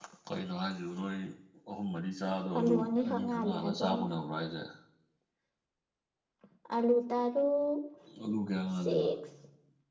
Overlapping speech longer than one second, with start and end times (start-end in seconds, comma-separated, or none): 2.3-4.1